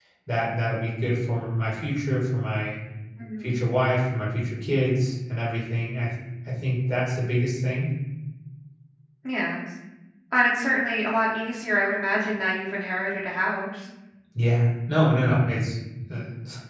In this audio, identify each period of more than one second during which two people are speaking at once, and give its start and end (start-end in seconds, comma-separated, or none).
none